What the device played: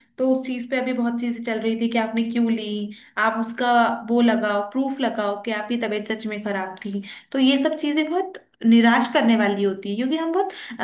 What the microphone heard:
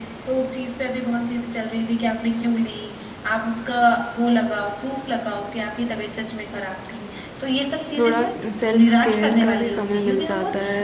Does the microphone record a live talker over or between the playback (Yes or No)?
Yes